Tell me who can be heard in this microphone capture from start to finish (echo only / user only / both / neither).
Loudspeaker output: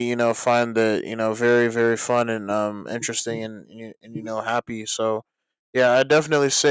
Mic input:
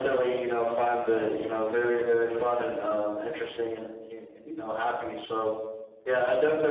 echo only